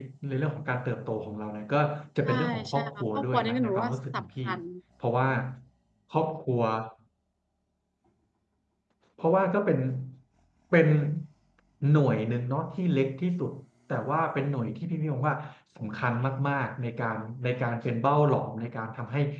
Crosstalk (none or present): present